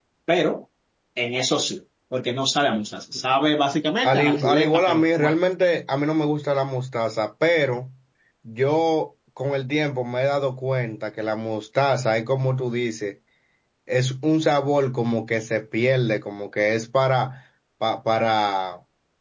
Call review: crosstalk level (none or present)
present